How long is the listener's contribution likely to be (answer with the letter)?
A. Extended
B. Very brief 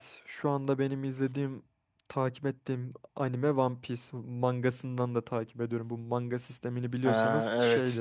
A